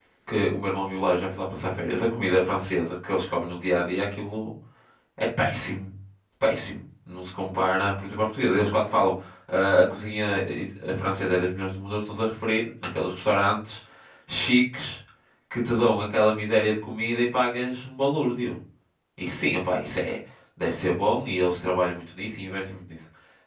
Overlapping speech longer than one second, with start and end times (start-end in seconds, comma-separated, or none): none